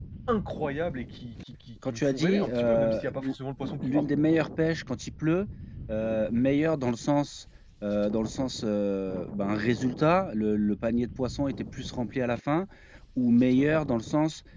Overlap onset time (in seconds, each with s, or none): 1.8 s